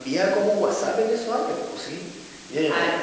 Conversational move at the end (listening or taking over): taking over